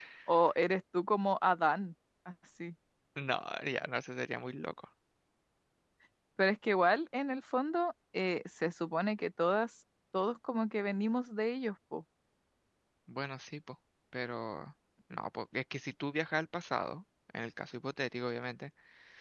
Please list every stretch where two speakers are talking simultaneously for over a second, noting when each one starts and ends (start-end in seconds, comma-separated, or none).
none